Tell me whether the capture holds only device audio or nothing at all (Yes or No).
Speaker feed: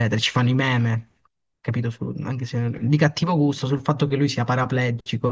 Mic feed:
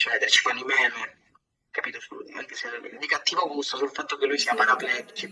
No